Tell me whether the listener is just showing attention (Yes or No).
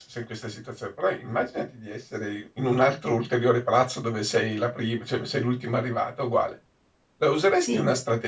Yes